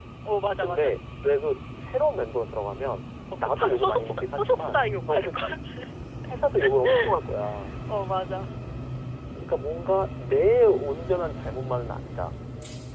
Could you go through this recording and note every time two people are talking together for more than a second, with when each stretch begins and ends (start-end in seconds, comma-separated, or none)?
3.4-5.3